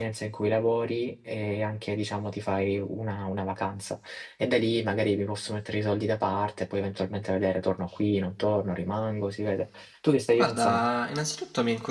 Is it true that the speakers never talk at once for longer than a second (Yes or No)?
Yes